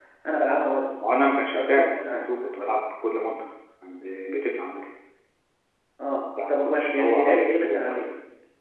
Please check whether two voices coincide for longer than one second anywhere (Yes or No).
Yes